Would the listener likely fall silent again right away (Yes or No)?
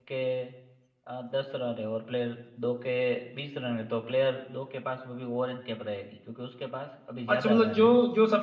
No